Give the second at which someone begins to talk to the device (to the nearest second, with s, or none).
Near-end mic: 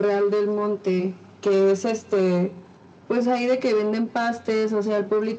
none